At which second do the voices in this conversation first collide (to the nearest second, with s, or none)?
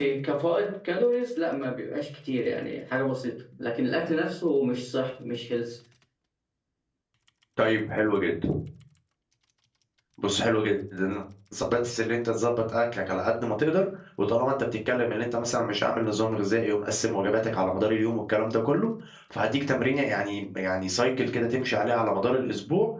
none